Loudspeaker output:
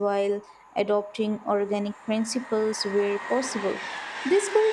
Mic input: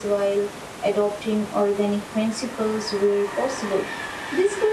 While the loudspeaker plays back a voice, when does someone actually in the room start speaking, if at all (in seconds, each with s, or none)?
none